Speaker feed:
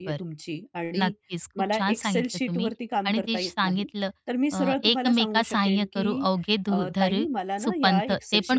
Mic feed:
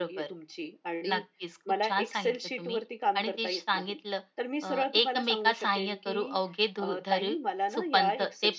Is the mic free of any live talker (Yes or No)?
Yes